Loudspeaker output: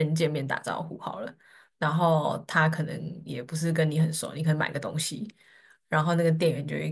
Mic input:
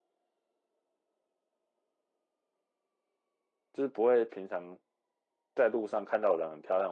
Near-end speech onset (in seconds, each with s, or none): 3.7 s